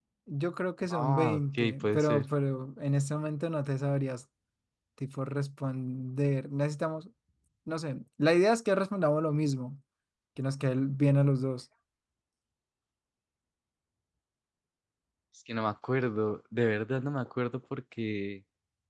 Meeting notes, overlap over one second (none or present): present